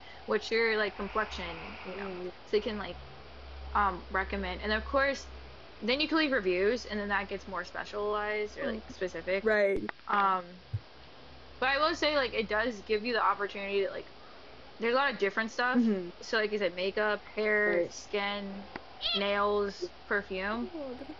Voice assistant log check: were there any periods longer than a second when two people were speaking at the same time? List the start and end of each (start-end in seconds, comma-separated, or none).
none